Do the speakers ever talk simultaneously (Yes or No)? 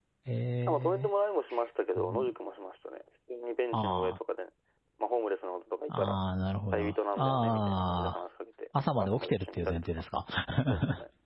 Yes